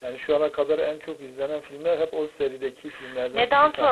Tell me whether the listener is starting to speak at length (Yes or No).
Yes